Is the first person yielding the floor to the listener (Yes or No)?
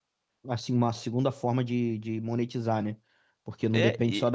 No